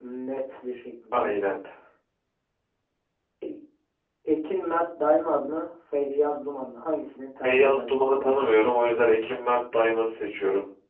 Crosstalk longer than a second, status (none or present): present